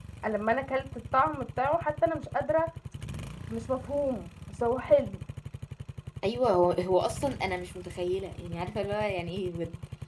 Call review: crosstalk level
none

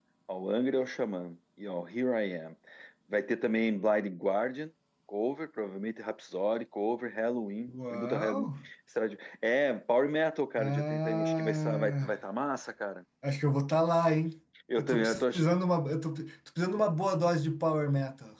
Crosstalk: present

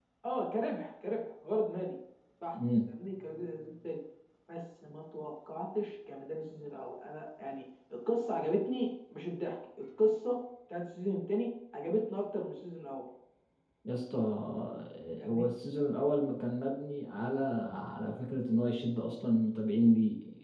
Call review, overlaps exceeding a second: none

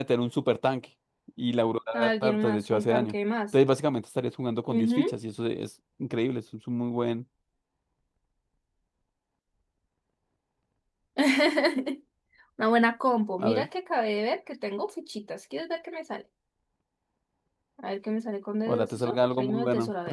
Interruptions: present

